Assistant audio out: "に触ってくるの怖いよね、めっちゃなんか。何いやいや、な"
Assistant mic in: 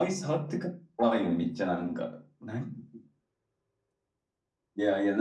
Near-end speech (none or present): none